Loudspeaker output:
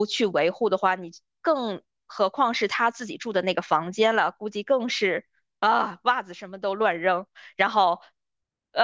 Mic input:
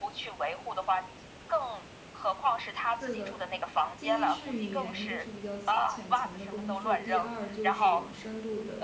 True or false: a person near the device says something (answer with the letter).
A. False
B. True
B